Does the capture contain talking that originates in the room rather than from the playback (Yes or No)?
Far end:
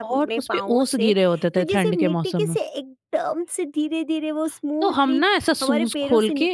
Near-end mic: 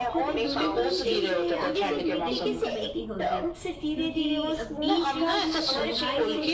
Yes